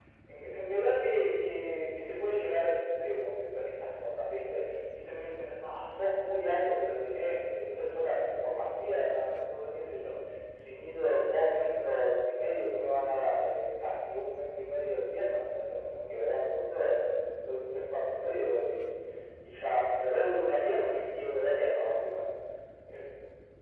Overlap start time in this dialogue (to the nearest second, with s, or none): none